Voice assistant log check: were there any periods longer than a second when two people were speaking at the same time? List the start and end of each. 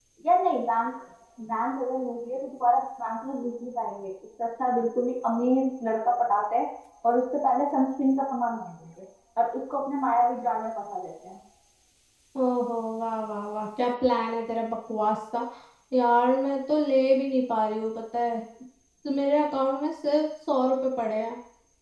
none

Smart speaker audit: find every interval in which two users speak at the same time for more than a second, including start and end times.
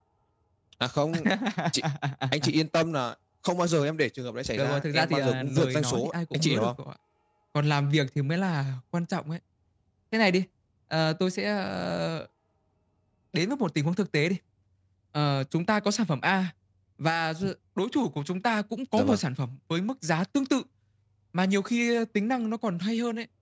4.6-6.7

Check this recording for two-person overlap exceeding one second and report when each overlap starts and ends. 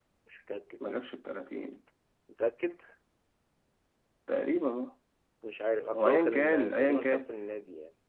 5.9-7.3

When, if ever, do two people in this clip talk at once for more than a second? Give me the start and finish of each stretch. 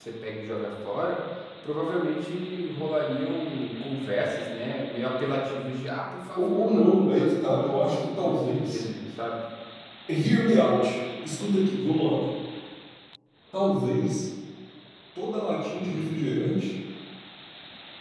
6.4-8.8

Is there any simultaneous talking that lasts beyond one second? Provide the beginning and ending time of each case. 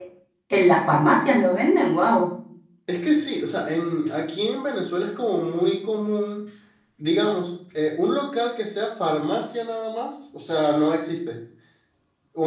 none

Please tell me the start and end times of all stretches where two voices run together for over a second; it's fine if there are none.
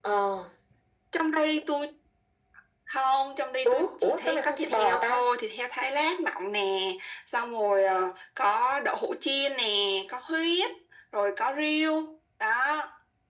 3.6-5.3

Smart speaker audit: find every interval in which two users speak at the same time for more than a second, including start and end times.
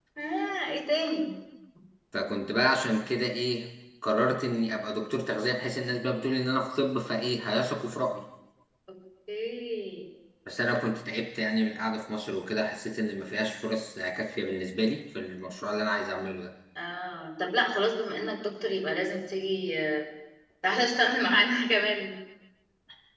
none

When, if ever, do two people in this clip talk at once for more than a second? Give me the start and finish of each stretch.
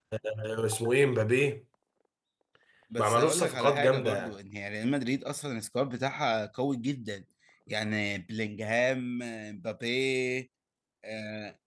3.0-4.3

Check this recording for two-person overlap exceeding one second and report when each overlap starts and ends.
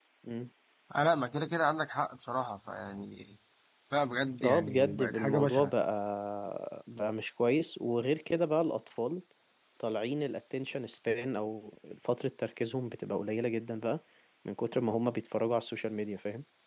4.4-5.7

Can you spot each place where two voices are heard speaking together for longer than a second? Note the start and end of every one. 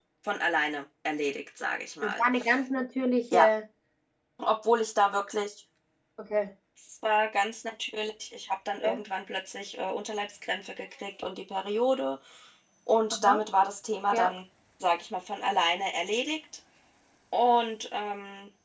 none

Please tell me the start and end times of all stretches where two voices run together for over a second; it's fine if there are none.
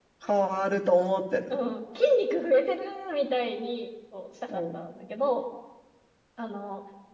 none

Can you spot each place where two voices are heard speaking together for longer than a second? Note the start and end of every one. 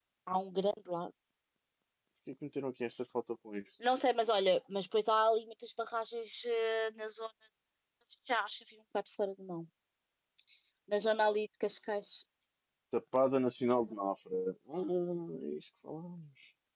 none

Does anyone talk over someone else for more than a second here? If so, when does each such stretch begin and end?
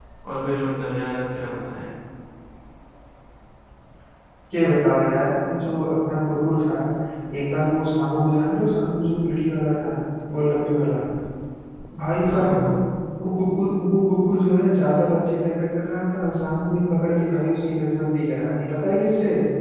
none

